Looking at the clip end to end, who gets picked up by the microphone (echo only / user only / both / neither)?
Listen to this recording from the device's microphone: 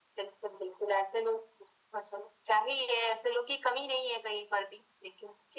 echo only